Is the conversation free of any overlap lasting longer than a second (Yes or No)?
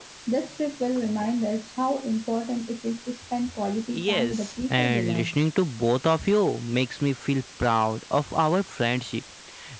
No